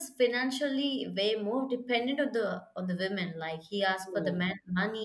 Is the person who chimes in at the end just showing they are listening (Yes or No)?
Yes